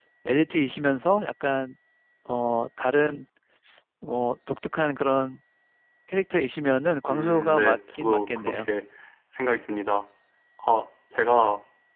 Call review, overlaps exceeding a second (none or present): present